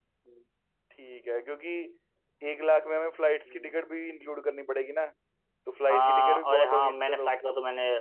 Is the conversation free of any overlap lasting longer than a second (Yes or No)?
No